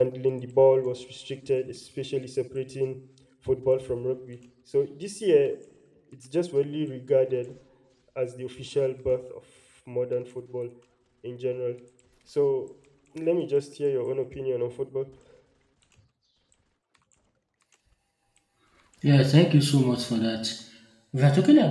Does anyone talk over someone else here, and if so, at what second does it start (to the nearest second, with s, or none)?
none